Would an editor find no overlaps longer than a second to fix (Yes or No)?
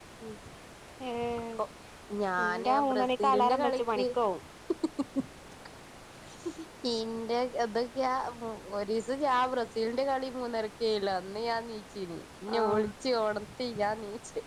No